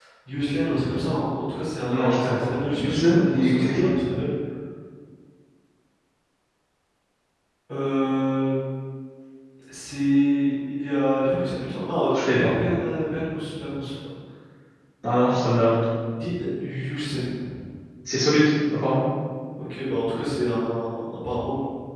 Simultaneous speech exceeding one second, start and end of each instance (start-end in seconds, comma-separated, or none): 1.9-3.9